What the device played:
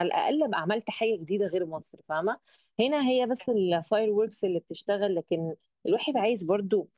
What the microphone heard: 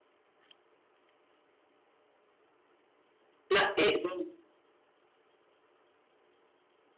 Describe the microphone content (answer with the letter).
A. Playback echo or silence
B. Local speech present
B